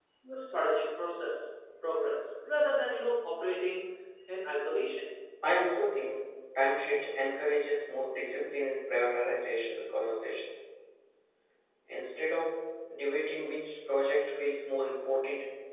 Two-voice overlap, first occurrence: none

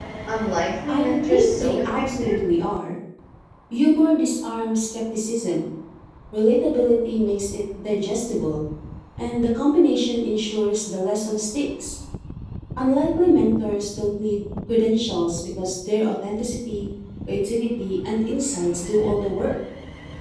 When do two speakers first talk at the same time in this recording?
0.9 s

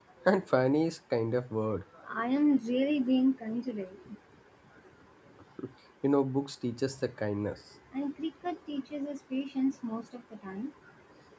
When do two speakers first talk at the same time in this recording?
none

